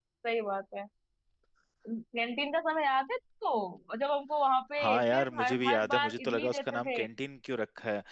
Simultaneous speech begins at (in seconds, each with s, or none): 4.8 s